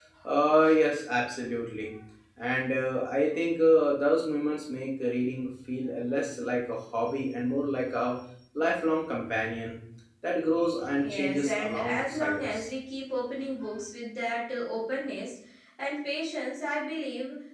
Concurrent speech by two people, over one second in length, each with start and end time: 11.0-12.6

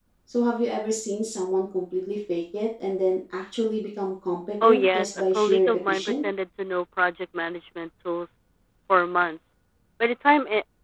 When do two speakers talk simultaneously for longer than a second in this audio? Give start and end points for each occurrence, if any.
4.6-6.3

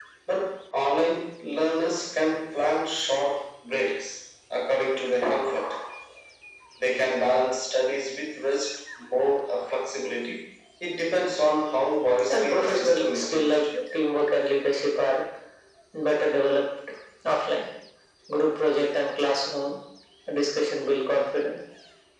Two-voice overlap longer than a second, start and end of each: 12.3-13.6

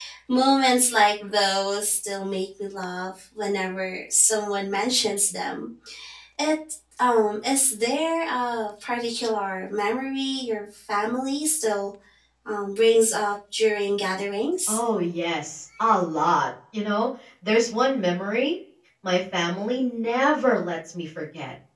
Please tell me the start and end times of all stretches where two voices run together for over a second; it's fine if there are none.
none

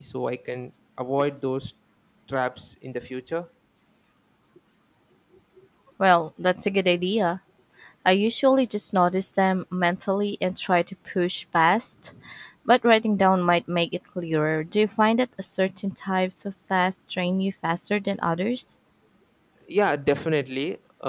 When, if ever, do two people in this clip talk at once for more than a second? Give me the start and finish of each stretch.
none

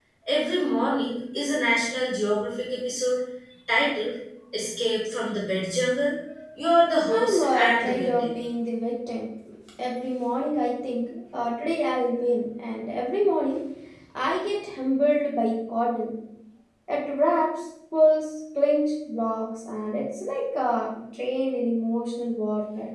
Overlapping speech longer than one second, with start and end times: 7.1-8.3

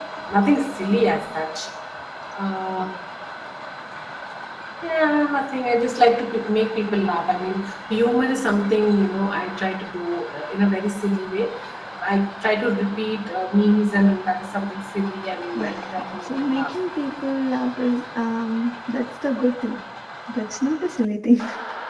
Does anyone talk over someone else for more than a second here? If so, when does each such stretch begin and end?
15.6-16.8

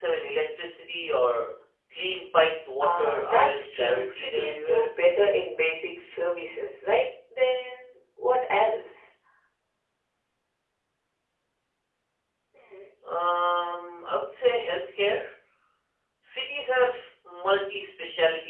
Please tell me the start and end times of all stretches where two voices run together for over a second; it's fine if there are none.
2.8-4.9

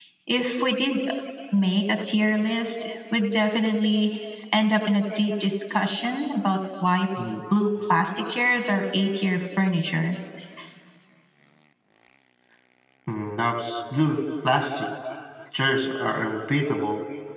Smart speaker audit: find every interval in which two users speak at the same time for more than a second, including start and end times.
none

